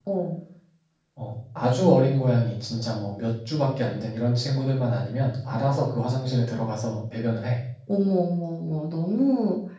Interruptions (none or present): none